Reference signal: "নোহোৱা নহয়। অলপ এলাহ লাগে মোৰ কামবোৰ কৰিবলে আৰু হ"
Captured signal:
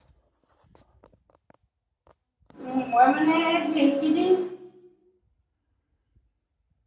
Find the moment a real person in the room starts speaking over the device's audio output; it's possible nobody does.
2.7 s

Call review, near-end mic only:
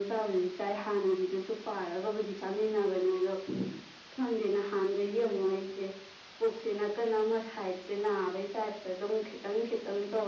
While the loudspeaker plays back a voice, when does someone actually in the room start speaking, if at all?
none

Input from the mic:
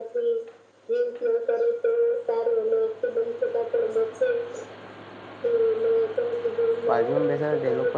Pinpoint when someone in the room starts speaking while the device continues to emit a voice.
6.9 s

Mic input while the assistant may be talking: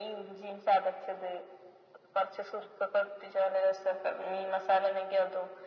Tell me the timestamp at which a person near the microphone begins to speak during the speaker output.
none

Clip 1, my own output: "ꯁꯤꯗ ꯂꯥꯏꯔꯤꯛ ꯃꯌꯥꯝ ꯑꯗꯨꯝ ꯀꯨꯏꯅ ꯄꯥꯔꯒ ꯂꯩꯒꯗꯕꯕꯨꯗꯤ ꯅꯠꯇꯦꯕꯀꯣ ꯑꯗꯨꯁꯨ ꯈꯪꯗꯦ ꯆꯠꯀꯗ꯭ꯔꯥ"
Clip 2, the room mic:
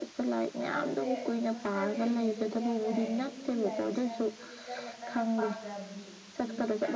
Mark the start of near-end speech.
0.6 s

